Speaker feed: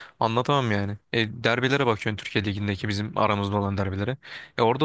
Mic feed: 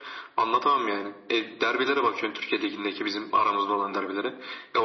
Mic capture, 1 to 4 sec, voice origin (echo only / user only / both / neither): echo only